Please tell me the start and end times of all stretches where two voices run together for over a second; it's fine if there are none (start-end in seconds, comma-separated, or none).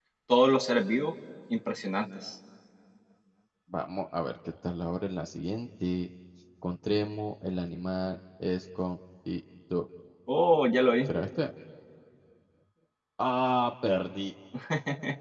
none